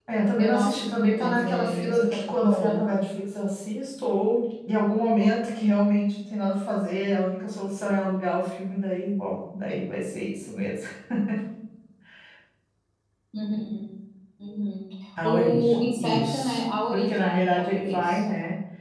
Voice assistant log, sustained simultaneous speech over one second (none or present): present